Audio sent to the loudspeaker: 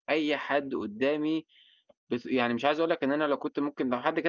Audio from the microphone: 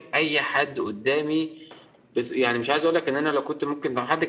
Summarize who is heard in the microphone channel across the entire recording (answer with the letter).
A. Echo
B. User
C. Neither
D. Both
A